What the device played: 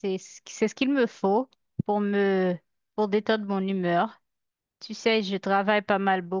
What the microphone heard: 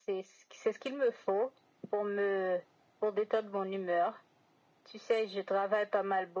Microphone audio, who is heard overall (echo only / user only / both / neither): echo only